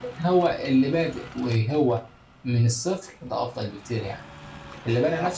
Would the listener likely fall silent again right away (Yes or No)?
Yes